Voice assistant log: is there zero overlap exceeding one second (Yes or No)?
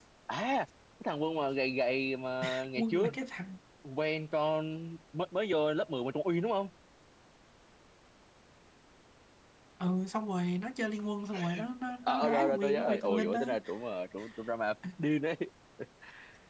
No